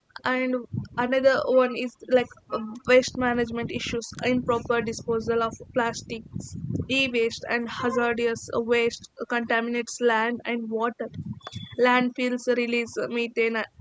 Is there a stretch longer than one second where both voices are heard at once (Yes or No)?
No